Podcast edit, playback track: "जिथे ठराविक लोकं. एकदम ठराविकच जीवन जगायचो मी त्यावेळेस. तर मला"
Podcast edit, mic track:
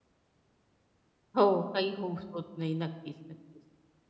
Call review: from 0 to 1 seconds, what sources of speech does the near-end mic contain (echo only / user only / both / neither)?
neither